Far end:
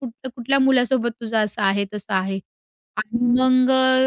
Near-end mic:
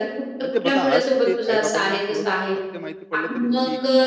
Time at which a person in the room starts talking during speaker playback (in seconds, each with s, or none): 0.4 s